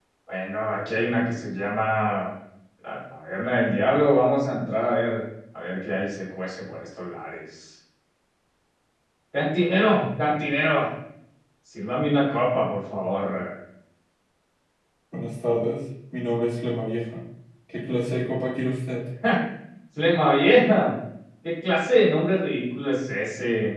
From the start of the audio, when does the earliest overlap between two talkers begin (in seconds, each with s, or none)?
none